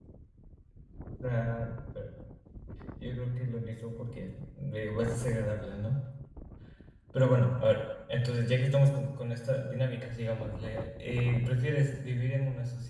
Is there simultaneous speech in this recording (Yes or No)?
No